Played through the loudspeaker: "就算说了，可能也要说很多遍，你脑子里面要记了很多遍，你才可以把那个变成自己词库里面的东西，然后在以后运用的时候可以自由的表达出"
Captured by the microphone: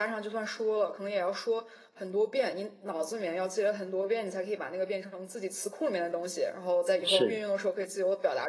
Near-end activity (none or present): present